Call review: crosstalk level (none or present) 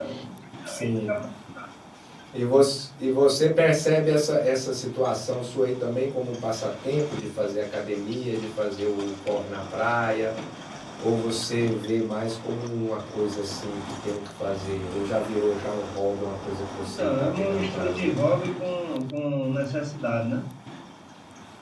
present